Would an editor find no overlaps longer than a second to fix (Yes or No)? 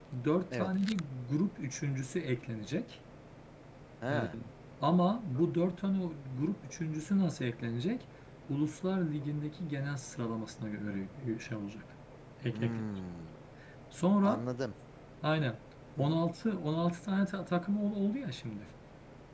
Yes